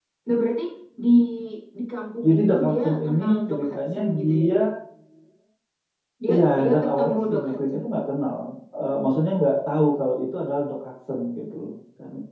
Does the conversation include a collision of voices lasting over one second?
Yes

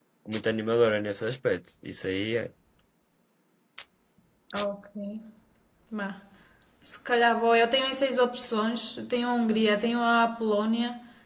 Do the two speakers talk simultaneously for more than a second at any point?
No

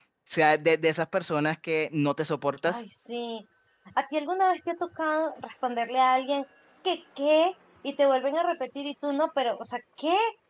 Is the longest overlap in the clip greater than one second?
No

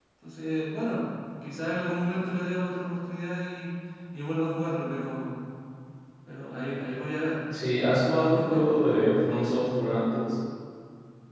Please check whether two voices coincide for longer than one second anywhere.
No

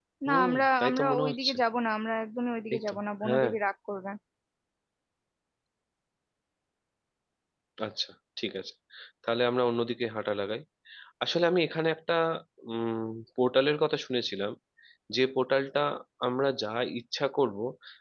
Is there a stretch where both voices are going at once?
Yes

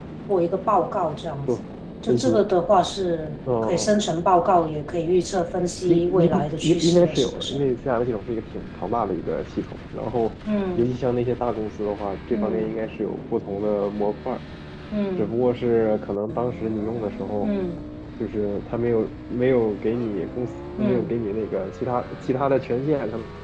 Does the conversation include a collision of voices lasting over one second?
Yes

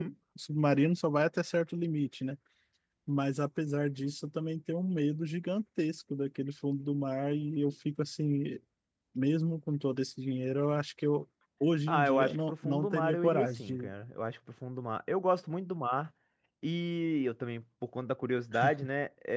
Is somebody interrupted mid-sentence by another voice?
Yes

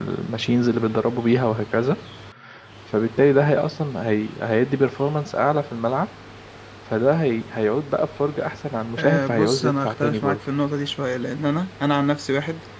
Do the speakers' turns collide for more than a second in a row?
Yes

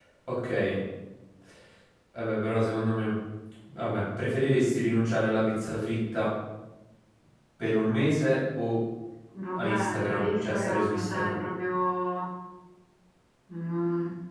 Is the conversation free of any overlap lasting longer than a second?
No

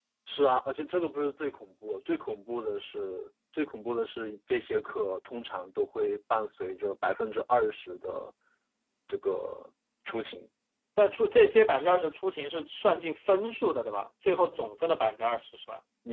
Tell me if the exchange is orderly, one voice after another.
Yes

